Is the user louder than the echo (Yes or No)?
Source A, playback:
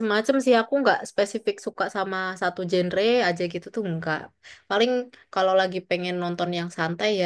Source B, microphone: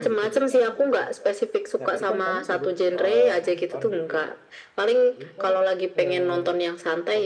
No